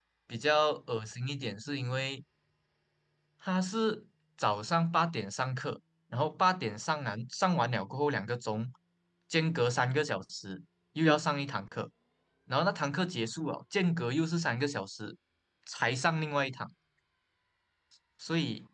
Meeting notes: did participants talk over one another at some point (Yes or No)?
No